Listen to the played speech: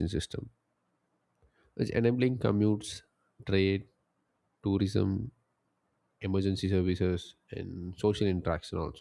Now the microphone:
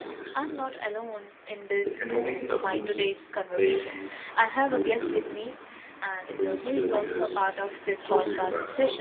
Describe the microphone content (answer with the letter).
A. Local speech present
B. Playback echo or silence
A